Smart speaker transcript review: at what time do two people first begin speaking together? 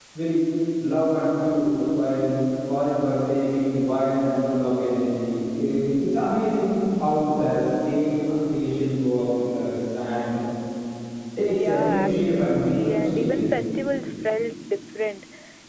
11.5 s

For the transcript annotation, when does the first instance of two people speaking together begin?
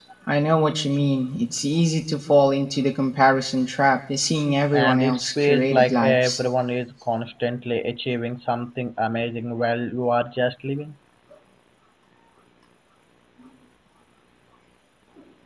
4.7 s

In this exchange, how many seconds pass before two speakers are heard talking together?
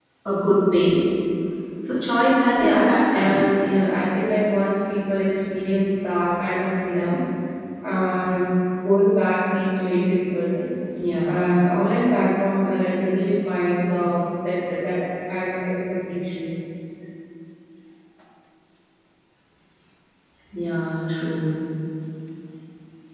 2.6 s

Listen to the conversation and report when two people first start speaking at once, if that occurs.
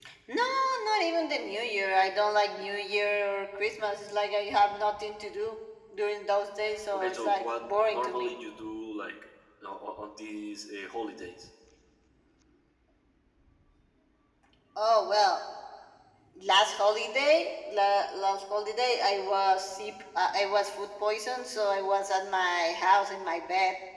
6.9 s

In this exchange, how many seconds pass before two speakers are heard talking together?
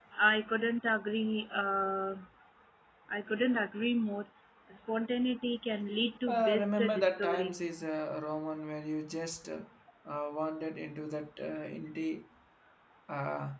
6.3 s

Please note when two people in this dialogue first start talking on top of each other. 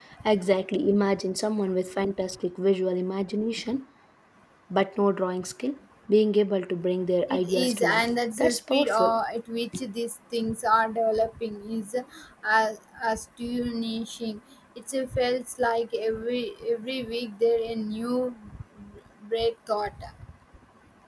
7.3 s

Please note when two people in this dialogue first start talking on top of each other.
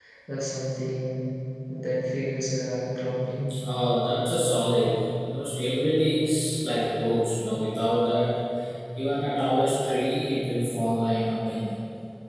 none

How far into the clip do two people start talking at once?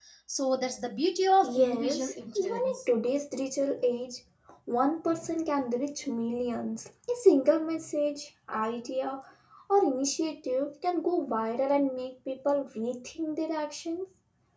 1.4 s

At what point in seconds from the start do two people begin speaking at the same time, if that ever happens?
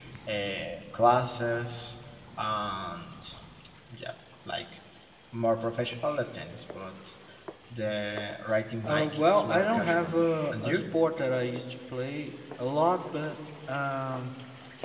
8.8 s

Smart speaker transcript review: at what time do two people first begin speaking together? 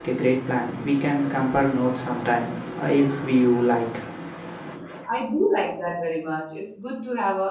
none

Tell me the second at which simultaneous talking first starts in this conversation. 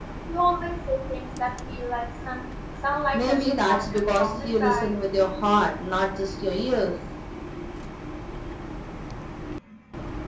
3.1 s

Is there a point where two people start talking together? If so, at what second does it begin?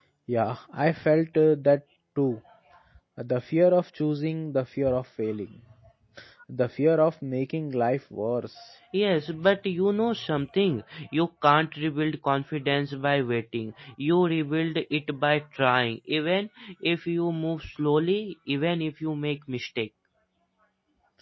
none

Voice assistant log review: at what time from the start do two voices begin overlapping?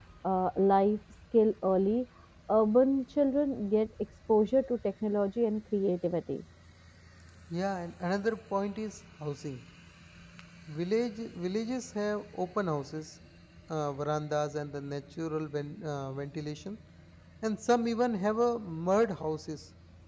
none

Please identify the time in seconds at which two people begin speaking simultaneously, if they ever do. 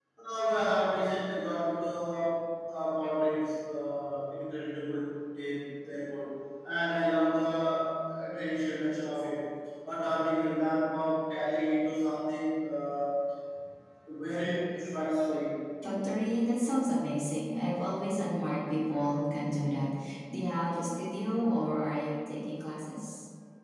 none

